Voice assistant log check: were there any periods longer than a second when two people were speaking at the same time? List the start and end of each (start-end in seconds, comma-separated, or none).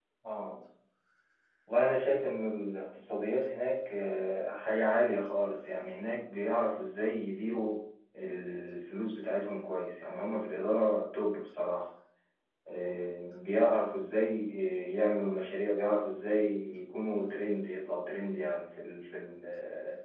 none